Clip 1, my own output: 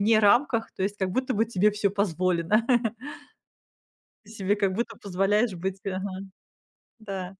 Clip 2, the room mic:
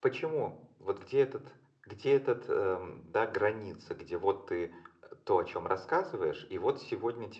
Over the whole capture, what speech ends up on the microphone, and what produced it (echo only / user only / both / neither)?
user only